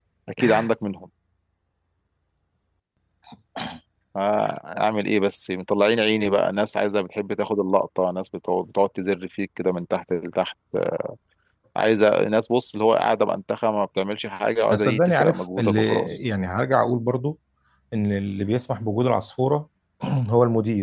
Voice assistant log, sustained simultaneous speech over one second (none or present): present